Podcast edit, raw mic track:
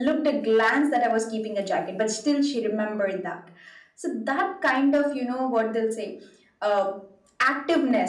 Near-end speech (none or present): none